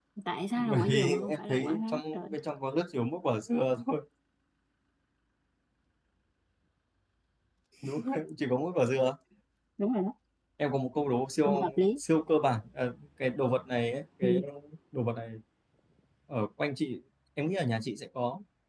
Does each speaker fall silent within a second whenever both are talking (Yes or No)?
No